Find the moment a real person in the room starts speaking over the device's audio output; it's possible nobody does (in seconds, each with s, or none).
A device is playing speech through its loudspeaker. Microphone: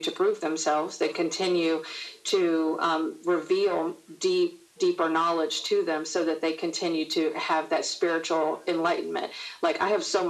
none